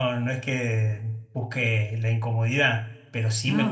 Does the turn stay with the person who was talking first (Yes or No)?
Yes